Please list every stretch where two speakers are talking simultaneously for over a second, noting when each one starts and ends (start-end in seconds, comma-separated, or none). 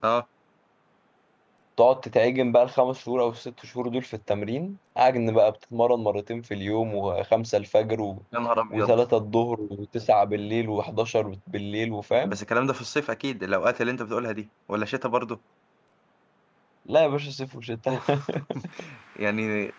none